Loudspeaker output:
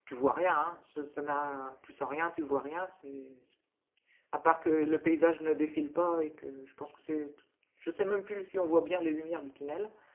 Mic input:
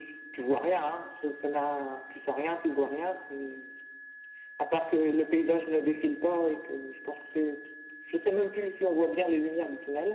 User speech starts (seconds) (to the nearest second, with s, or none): none